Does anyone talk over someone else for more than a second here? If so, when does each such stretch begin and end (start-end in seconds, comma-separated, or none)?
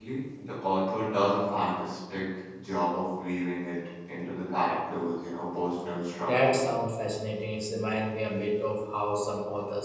none